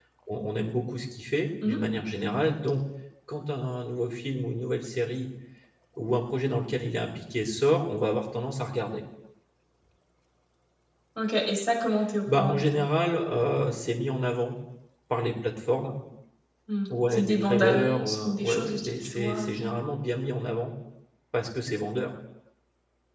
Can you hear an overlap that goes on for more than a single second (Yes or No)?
Yes